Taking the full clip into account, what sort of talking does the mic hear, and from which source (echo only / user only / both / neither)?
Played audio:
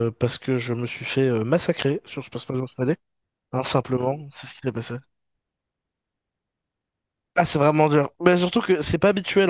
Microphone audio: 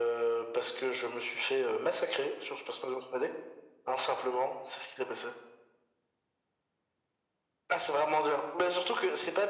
echo only